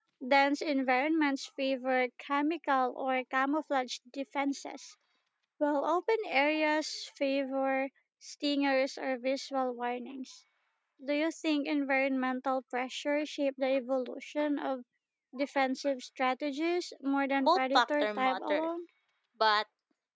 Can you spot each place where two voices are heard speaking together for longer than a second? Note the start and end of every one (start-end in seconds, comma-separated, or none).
17.4-18.7